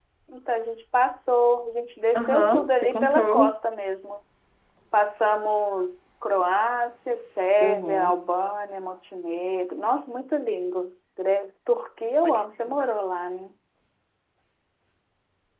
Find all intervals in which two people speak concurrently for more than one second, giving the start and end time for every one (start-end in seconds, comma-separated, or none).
2.1-3.5